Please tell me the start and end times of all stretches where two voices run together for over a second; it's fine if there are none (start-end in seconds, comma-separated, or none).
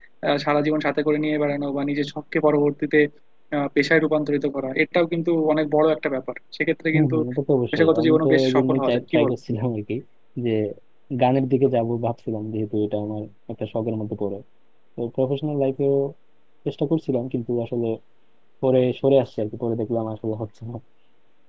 7.7-9.3